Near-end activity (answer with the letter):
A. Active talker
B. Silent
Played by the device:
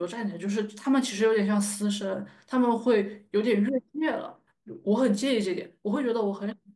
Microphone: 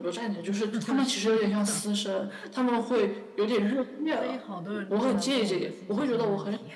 A